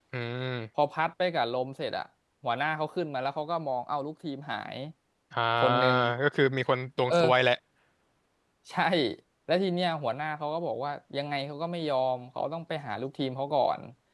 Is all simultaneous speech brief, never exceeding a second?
Yes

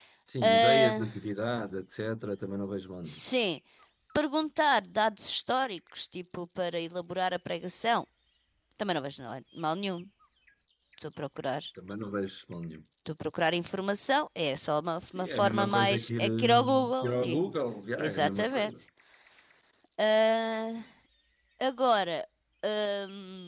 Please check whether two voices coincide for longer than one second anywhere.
Yes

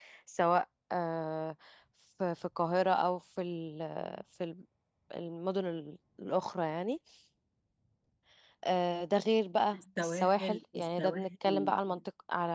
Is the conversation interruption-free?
No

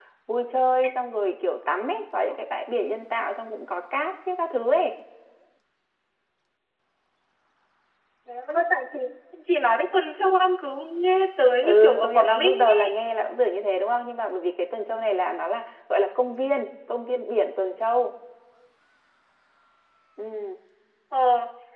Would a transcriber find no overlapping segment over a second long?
No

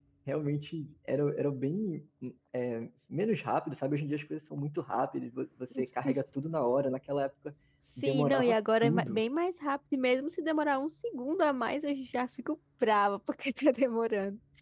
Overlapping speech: Yes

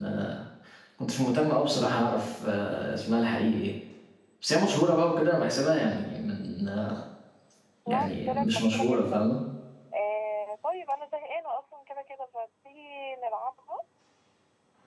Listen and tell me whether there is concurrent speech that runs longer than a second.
Yes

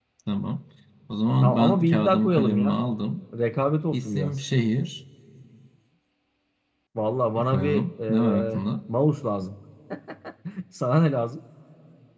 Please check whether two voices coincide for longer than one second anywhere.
Yes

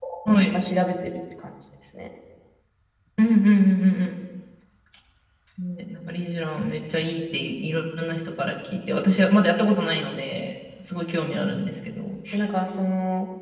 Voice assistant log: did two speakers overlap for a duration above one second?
No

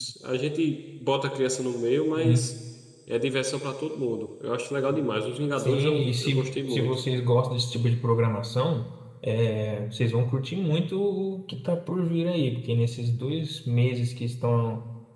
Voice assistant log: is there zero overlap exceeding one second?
No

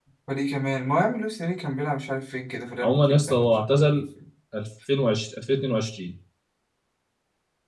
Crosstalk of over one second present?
Yes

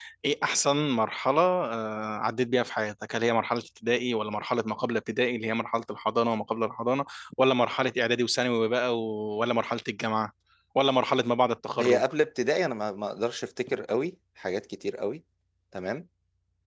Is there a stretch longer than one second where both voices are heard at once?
No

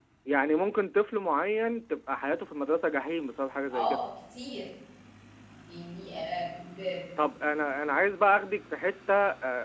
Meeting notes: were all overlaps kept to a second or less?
Yes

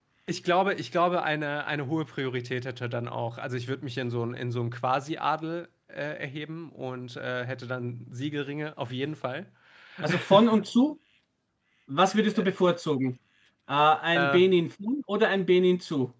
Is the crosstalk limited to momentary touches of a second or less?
Yes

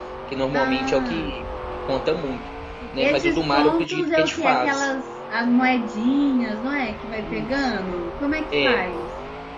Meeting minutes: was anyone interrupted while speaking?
Yes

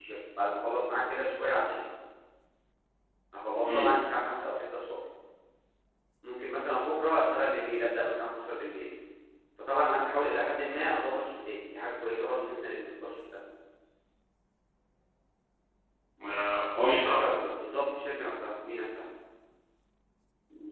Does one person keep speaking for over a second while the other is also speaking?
No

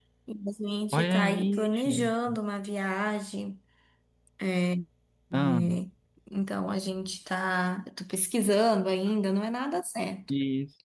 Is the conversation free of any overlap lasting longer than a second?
No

